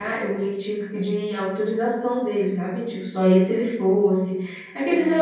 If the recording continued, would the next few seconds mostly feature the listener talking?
No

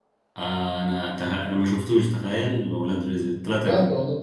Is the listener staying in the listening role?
No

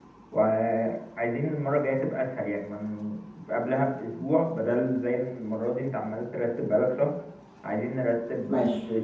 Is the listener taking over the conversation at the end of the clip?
Yes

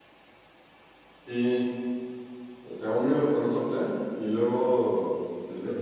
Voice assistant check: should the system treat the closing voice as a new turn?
No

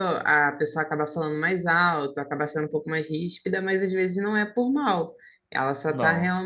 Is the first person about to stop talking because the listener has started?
No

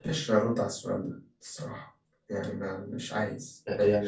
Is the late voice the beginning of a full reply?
Yes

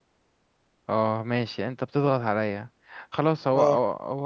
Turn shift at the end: No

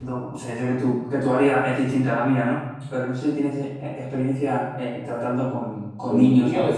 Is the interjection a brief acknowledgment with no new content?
No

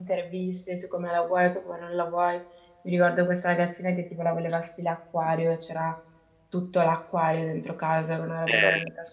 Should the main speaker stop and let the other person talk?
Yes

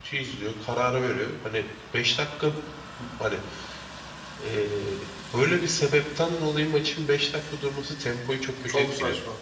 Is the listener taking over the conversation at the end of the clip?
Yes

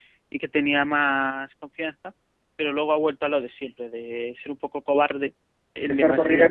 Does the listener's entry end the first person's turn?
Yes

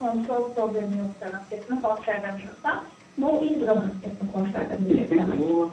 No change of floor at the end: No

